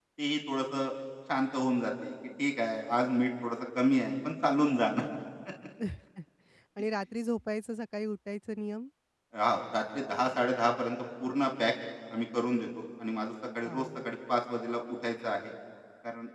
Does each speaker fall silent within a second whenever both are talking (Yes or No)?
Yes